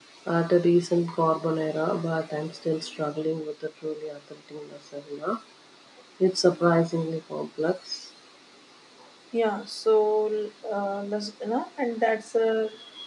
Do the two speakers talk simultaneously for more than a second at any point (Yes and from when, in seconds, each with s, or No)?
No